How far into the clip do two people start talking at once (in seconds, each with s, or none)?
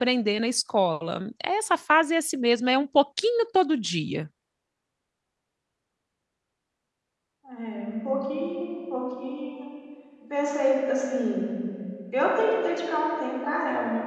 none